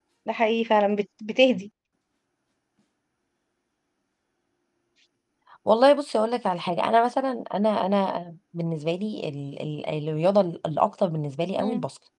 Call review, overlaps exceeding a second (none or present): none